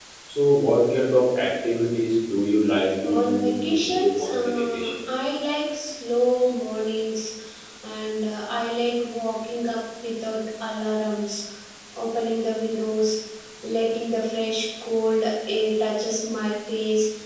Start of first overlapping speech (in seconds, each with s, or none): 3.0 s